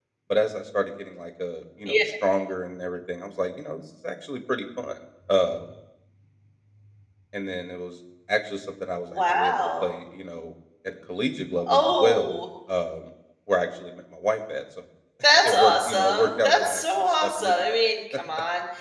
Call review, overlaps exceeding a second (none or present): present